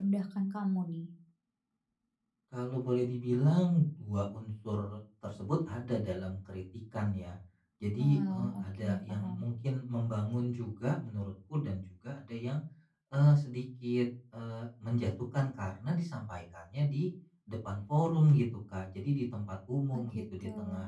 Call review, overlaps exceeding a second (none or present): present